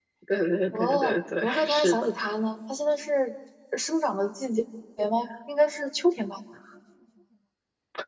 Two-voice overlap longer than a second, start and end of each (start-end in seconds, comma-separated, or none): 0.7-2.1